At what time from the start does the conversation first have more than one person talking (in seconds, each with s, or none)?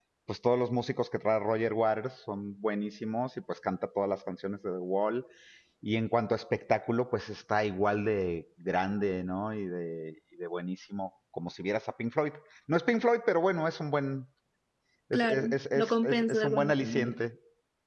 15.1 s